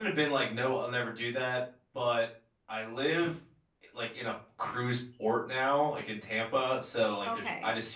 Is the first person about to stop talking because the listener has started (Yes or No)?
No